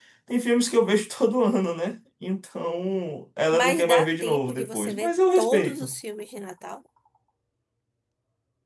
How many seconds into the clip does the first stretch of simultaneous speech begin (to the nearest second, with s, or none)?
4 s